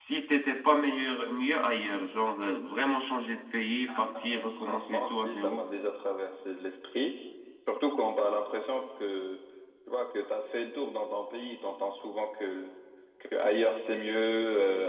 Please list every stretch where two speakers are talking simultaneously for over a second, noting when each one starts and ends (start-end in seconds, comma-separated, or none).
4.2-5.6